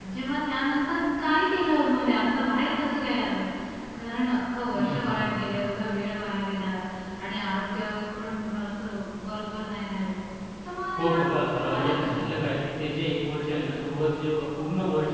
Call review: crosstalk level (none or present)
present